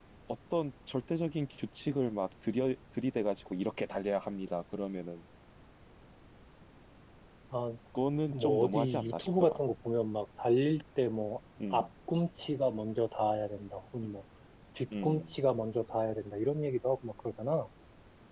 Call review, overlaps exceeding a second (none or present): present